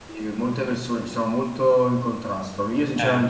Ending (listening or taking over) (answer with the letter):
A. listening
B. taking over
A